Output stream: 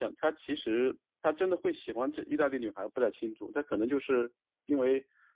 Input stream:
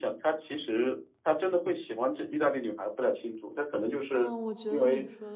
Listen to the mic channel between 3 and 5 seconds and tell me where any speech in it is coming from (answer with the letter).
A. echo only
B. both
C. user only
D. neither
B